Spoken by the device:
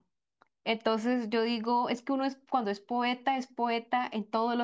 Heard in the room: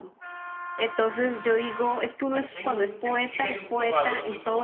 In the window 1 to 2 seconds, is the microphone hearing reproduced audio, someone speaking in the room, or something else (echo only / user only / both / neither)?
echo only